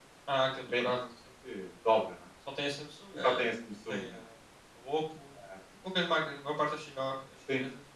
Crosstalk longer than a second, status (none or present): none